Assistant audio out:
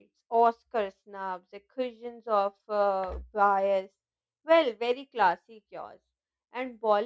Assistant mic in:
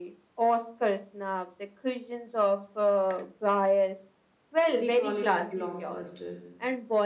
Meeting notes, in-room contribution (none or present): present